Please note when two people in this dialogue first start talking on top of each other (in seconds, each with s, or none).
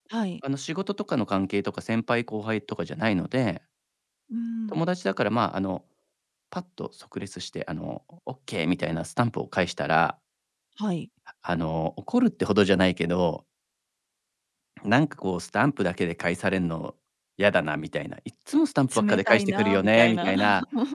18.9 s